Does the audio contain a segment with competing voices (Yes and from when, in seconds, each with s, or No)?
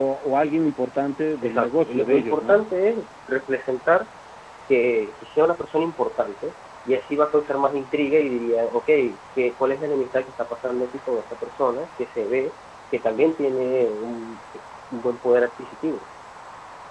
Yes, from 1.4 s